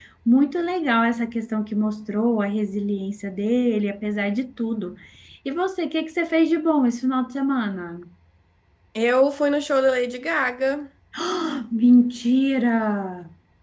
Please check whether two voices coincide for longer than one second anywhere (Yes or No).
No